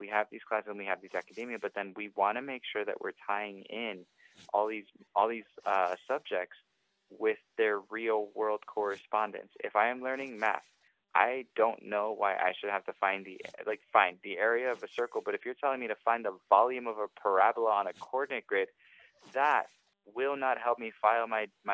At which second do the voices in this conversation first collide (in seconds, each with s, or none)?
none